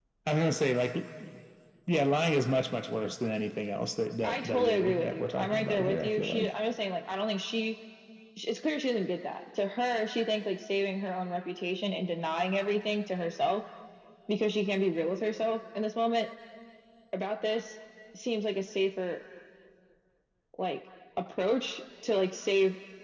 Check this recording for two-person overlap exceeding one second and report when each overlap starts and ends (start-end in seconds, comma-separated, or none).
4.2-6.5